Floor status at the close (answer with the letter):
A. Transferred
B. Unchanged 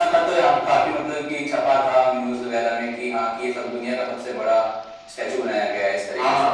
A